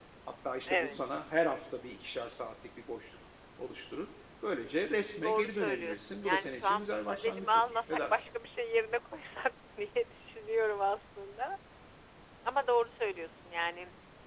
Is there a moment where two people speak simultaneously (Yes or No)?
Yes